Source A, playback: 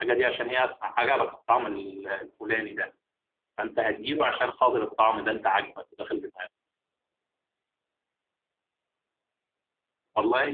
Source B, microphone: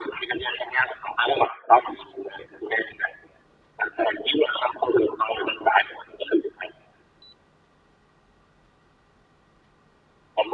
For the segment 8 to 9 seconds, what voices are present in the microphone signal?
neither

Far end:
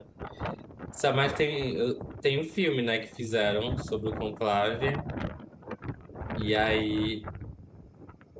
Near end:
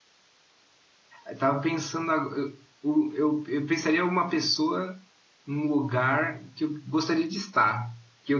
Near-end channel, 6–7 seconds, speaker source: user only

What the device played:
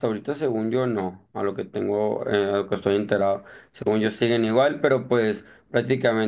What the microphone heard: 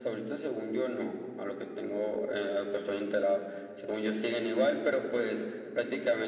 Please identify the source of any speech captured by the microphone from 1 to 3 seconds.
echo only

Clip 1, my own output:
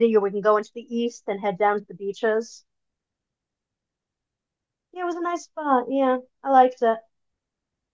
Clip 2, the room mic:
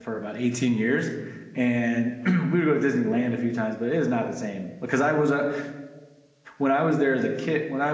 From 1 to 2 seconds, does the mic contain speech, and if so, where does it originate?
user only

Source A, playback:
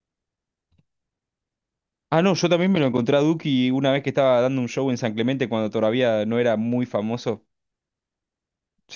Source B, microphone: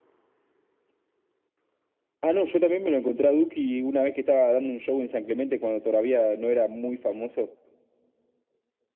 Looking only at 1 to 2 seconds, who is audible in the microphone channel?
neither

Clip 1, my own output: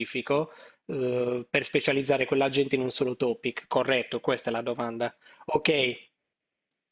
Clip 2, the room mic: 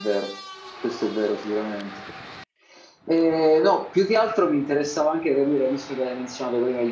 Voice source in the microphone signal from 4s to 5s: user only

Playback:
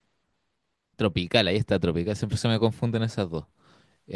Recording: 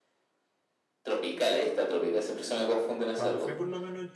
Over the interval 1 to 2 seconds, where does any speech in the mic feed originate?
echo only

